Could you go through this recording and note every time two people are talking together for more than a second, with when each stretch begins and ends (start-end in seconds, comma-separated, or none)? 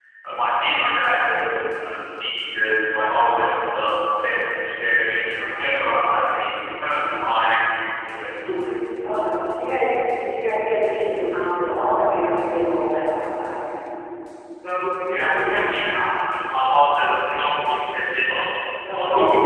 none